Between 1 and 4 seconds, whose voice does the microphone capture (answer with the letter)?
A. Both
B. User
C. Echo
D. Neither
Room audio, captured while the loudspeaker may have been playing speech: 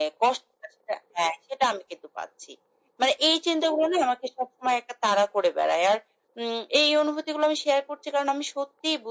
C